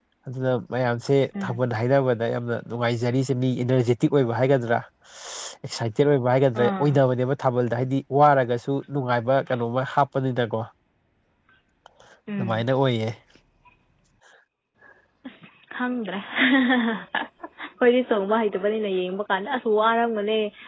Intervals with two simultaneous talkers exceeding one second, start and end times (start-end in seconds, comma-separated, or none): none